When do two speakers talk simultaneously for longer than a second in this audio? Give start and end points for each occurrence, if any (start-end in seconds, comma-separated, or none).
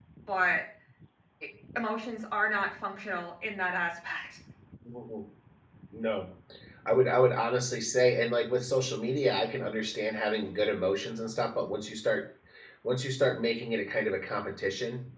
none